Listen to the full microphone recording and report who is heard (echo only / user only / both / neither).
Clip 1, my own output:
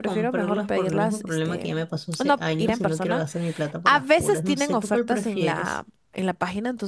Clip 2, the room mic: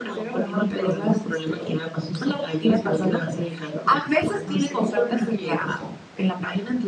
echo only